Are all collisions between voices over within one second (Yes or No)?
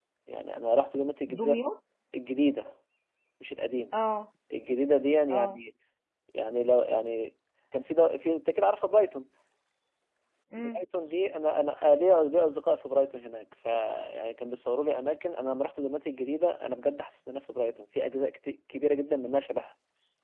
Yes